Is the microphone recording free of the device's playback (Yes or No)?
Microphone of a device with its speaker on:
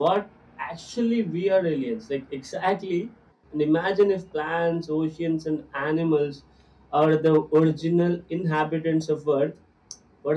Yes